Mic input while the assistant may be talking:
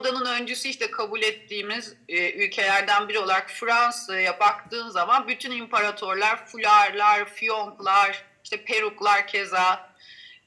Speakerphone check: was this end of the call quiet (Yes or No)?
Yes